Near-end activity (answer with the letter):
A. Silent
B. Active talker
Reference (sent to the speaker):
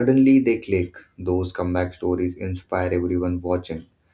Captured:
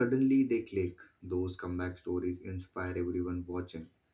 A